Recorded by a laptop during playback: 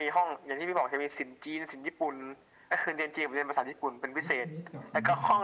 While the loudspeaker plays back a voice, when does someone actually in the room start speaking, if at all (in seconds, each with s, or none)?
4.2 s